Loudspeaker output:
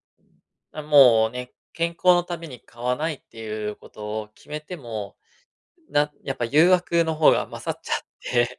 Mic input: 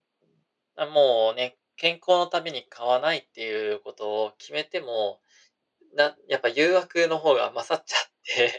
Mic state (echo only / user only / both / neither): echo only